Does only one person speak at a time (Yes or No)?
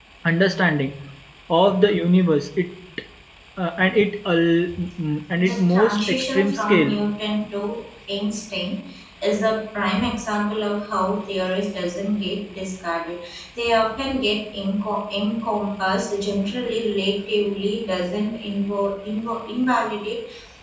No